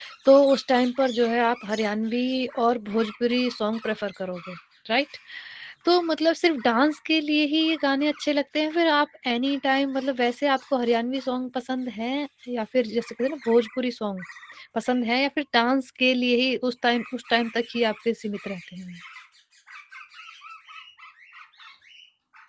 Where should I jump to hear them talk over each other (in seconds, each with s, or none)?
none